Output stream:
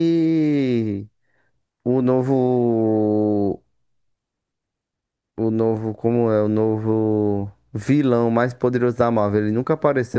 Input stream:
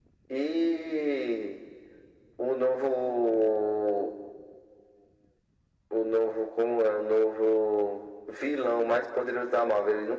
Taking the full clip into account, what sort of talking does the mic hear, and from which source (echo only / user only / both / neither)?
echo only